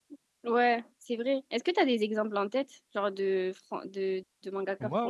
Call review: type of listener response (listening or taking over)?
taking over